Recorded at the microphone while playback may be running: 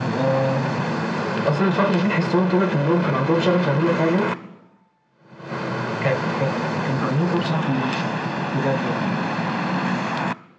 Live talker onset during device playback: none

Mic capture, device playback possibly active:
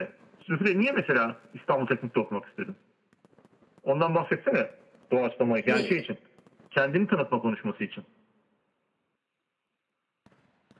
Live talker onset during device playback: 6 s

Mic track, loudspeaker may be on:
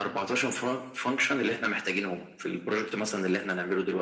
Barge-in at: none

